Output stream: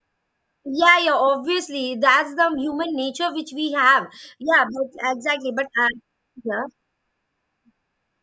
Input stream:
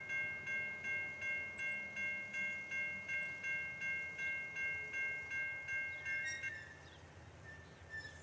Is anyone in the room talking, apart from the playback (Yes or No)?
No